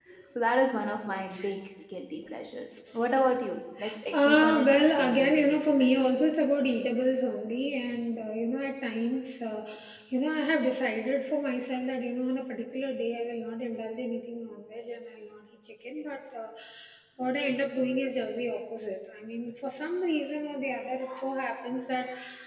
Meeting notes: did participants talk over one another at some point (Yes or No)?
Yes